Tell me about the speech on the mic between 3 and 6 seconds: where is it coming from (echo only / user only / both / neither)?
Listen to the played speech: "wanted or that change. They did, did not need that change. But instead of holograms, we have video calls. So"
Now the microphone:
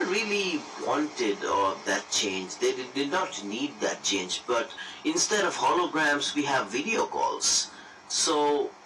echo only